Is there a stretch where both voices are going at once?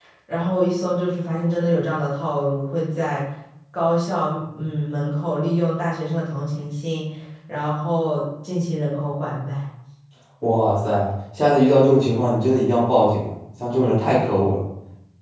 No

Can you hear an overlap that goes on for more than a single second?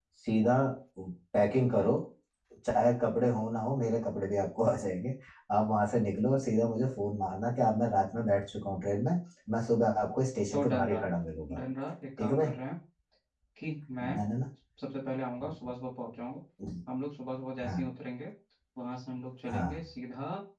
No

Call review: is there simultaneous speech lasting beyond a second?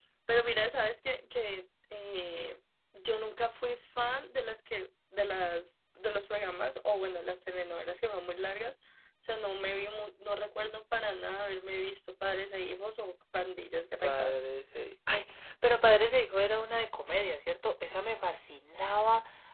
No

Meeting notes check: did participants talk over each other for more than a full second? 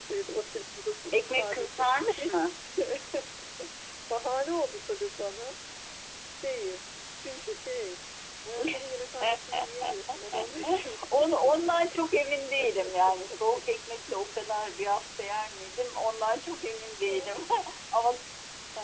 Yes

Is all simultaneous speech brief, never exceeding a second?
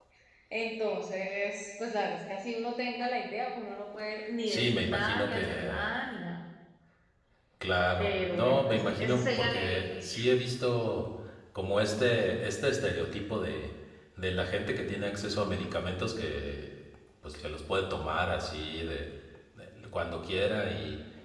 No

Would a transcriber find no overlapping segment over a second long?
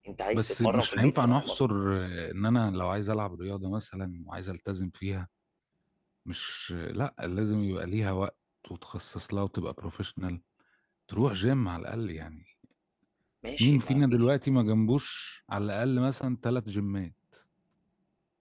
No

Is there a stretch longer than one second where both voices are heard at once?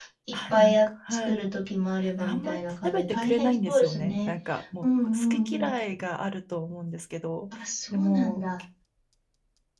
Yes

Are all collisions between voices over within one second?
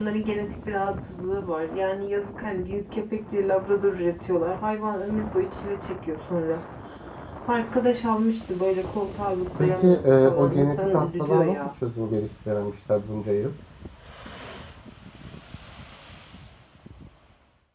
No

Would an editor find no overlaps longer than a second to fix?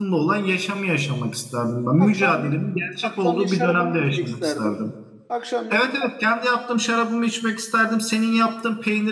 No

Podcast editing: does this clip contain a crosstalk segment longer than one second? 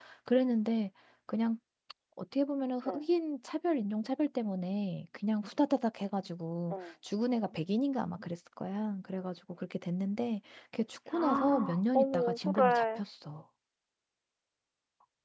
Yes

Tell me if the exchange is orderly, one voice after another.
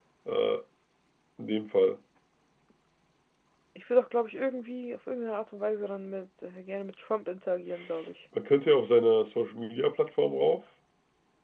Yes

